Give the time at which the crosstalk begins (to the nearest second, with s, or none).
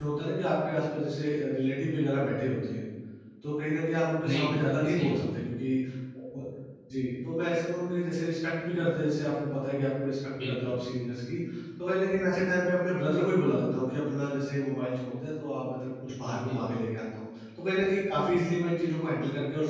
4 s